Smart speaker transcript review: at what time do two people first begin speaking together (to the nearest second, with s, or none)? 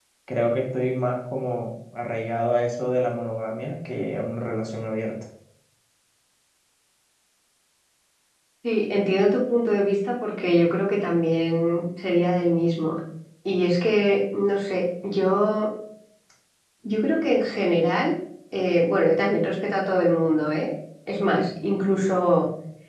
none